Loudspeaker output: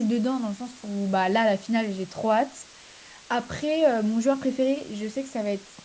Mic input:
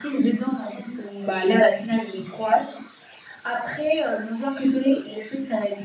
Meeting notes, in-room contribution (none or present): none